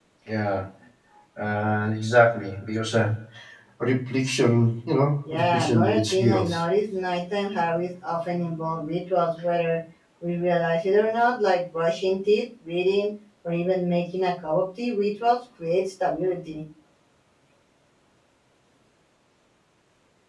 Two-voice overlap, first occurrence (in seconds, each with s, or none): 5.3 s